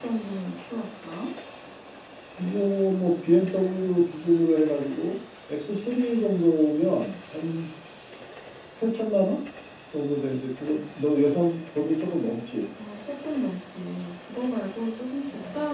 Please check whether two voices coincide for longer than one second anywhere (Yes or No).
No